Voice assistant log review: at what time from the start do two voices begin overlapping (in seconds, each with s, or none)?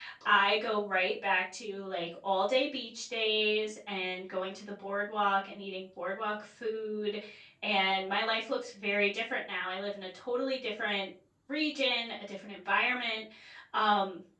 none